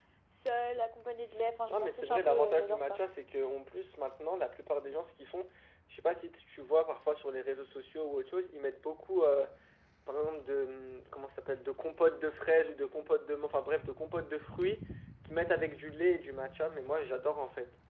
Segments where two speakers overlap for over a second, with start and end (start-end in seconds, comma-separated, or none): 1.7-3.0